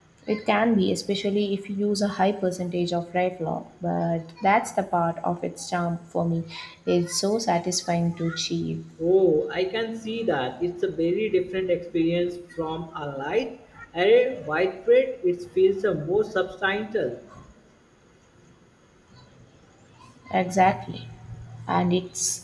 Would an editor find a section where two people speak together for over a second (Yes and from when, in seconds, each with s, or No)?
No